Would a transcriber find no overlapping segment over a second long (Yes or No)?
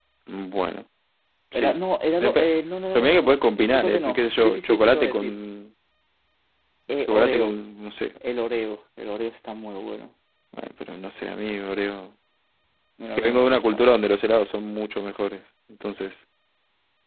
No